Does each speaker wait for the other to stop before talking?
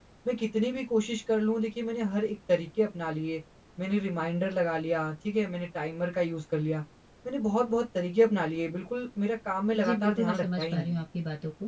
No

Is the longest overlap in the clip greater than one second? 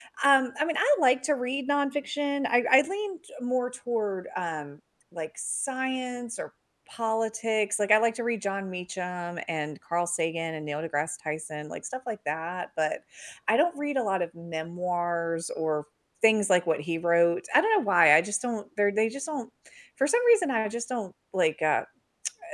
No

